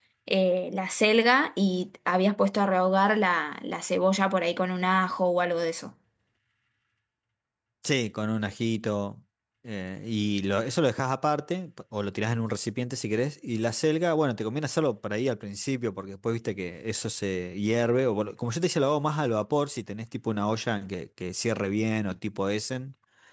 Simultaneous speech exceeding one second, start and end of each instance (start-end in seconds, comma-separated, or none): none